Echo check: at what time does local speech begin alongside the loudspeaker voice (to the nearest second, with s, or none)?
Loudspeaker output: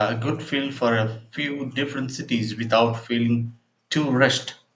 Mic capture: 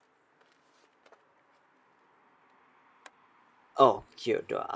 4 s